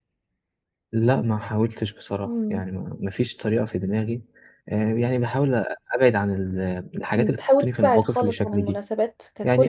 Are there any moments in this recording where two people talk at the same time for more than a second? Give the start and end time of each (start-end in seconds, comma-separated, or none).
7.2-8.8